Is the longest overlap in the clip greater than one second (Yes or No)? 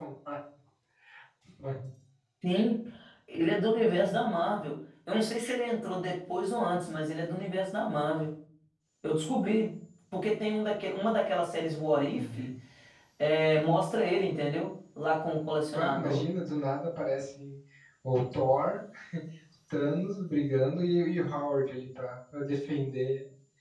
No